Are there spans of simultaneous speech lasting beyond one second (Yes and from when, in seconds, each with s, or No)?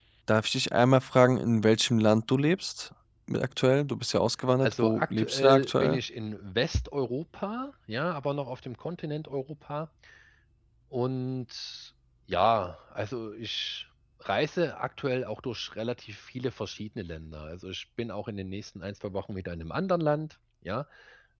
Yes, from 4.6 s